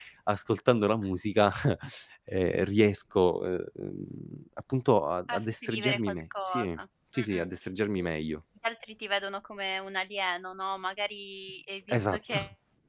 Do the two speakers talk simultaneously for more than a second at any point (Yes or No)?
Yes